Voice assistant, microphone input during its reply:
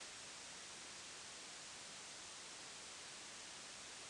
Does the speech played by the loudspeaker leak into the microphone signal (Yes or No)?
No